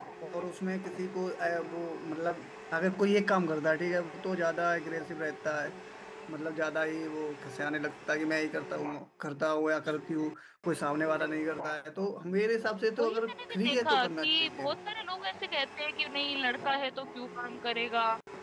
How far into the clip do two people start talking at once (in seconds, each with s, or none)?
13.0 s